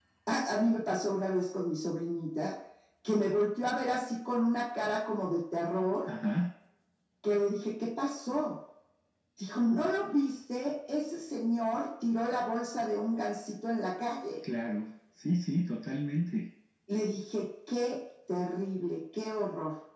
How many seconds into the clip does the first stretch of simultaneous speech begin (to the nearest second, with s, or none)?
none